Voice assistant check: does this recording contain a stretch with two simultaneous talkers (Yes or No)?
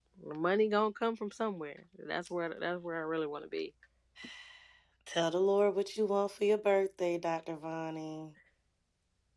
No